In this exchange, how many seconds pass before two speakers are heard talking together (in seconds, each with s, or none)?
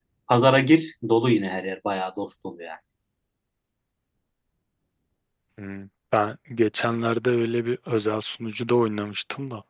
none